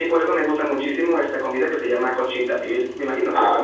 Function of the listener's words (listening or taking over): taking over